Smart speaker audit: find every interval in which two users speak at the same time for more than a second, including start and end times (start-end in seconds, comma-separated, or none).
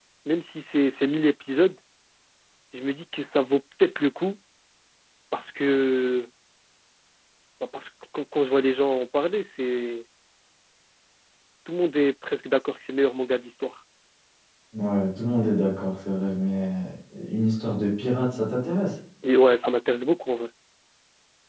none